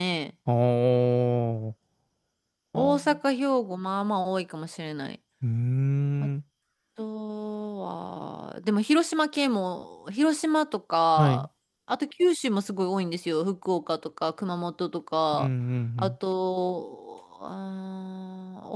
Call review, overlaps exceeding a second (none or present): none